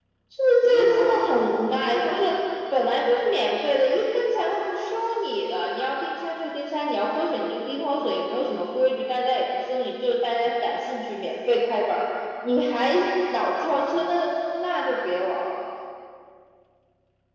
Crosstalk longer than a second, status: present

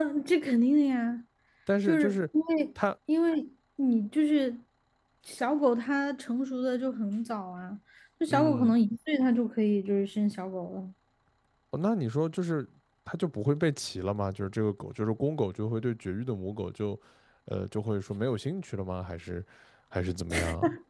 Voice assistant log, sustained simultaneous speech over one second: none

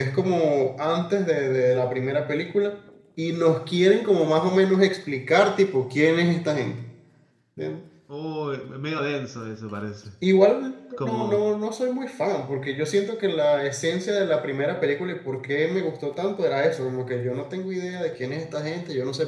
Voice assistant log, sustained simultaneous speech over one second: none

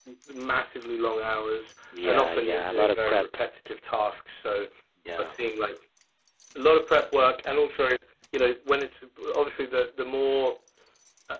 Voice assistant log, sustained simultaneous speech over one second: present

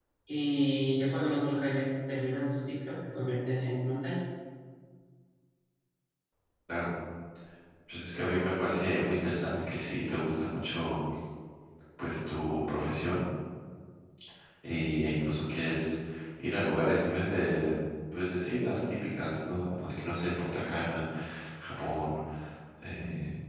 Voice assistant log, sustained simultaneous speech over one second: none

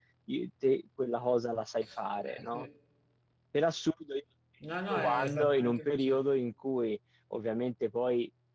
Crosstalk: present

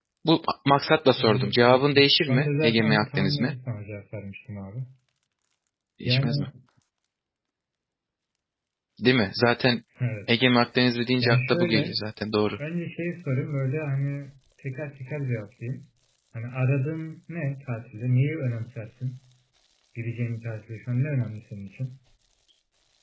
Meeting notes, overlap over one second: present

